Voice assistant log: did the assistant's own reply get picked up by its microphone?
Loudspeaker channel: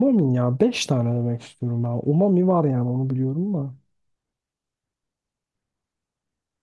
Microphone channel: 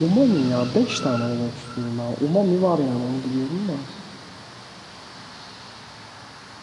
Yes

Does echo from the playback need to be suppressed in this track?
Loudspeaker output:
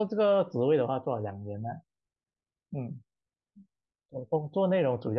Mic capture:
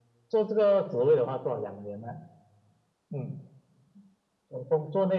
Yes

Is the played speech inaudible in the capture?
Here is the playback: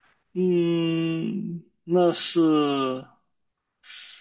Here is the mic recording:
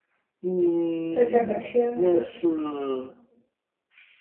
No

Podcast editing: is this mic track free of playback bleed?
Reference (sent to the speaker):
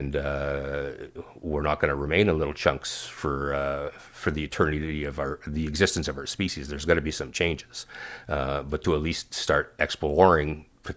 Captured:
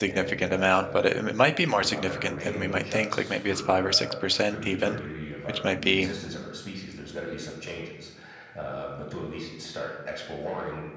No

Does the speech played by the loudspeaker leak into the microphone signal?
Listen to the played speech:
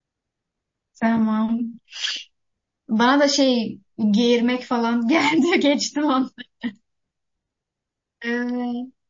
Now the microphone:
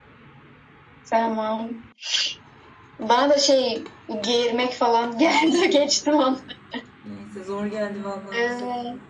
Yes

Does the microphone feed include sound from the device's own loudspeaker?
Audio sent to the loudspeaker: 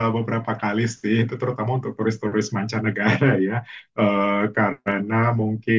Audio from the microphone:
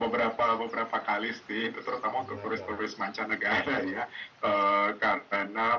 Yes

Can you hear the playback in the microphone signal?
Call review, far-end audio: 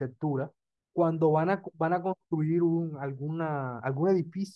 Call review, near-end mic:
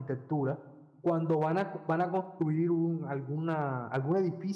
Yes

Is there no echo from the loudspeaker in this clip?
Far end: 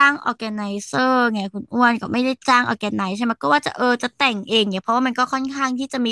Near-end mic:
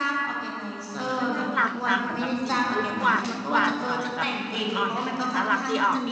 No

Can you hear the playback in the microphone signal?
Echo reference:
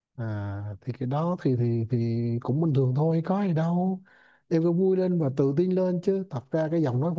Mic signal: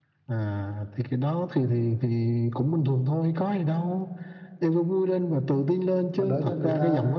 Yes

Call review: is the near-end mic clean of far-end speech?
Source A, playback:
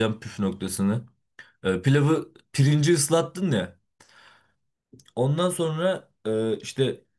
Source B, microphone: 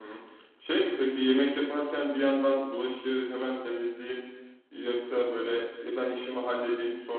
Yes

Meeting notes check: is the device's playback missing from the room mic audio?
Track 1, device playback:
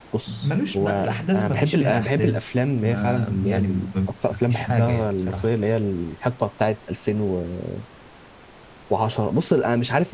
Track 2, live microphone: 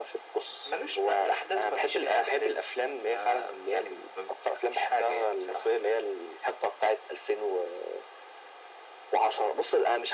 No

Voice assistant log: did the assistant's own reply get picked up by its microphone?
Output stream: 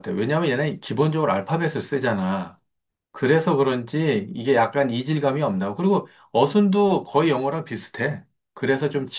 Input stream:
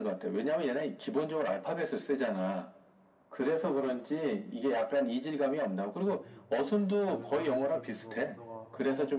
Yes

